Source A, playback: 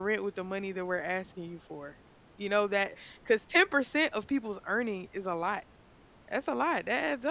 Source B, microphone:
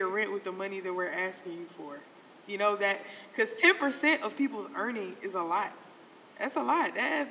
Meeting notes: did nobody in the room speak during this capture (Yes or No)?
Yes